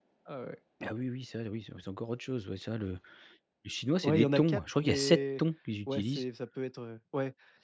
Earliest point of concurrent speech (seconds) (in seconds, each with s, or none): 4.0 s